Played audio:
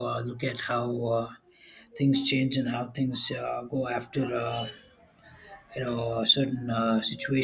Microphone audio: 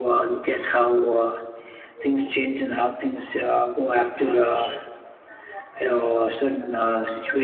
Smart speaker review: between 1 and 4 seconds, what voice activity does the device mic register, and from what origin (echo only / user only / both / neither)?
echo only